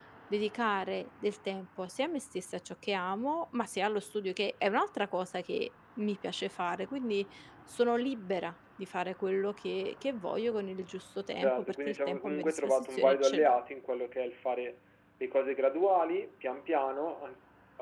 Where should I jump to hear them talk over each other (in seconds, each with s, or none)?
11.4 s